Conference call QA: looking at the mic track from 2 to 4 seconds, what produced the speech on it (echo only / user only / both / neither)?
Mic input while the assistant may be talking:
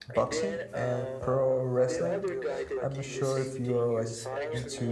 both